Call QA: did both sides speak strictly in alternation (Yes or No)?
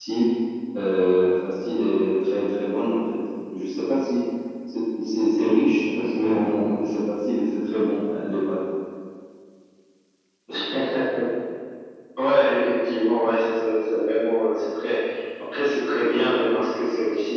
Yes